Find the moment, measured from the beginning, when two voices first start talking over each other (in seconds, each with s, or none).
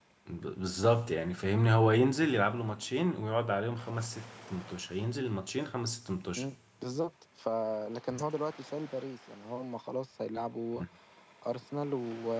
none